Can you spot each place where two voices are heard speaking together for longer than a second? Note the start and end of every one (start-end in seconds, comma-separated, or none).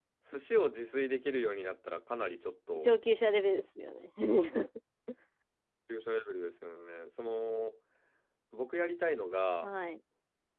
none